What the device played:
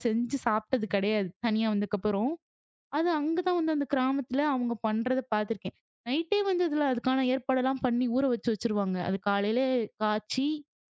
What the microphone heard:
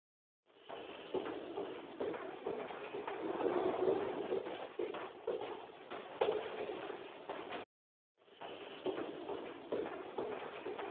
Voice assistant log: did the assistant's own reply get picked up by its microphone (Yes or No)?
No